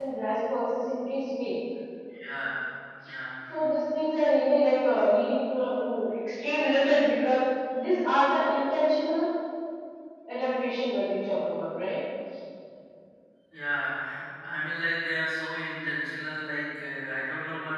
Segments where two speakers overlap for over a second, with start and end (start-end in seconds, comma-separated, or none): none